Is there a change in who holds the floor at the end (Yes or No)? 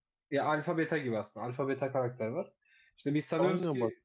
No